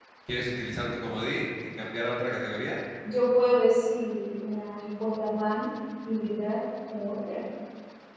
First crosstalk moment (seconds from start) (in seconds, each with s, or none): none